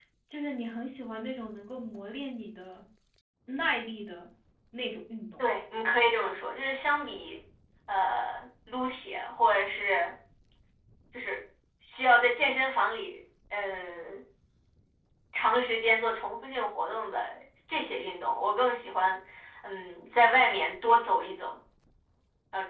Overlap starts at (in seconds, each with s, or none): none